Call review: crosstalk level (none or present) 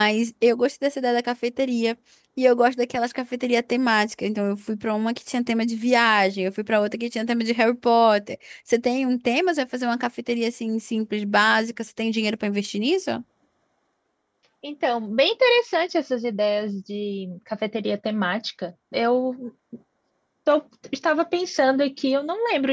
none